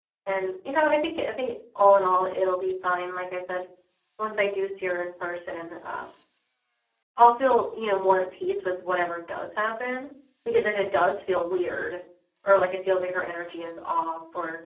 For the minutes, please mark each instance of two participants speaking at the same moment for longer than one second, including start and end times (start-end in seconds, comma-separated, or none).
none